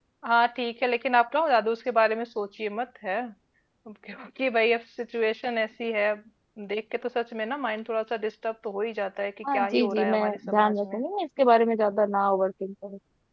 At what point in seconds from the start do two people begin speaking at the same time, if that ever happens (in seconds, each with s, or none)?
9.4 s